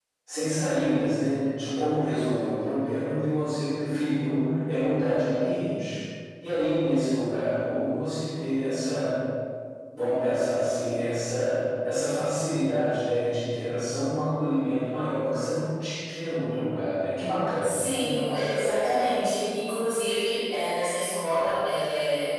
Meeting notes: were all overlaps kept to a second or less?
Yes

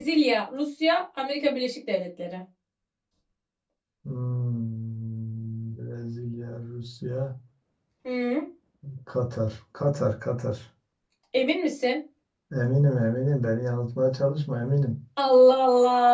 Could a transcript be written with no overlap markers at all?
Yes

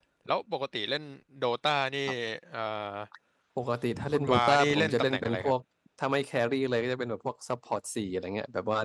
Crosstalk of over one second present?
Yes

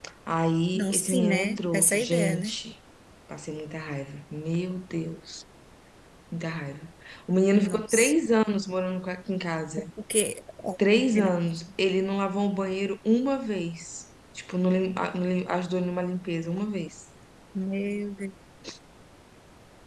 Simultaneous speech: Yes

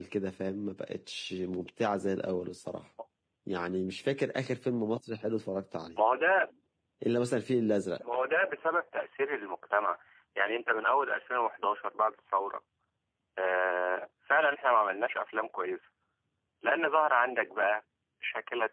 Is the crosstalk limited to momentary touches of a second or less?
Yes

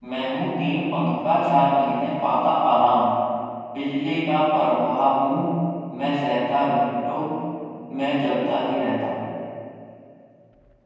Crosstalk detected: No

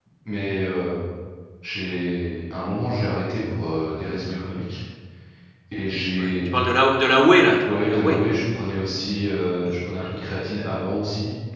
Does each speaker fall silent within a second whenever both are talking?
Yes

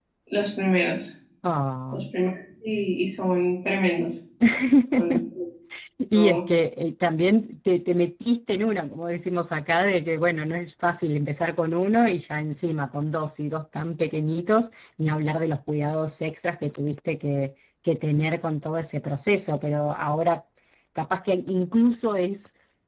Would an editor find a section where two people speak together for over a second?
No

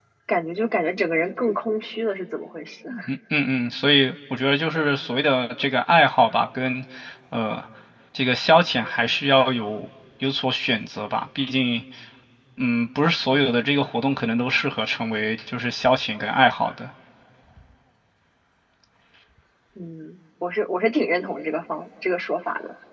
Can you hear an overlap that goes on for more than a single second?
No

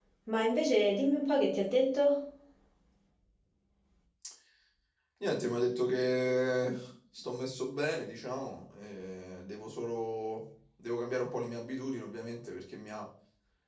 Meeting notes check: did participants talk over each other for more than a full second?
No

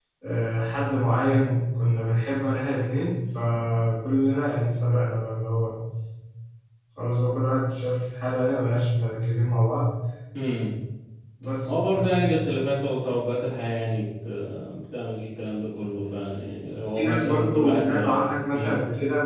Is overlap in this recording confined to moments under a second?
No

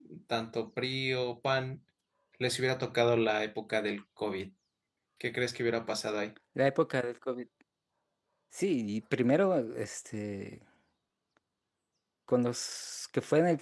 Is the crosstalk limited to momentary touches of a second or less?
Yes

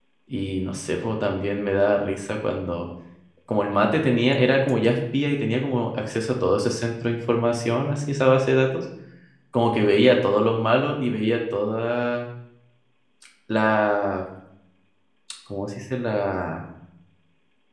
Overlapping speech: No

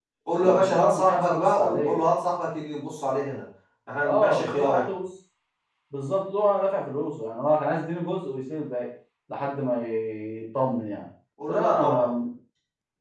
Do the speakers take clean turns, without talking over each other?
No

